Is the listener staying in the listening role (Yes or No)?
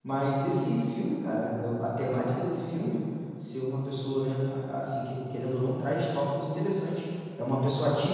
Yes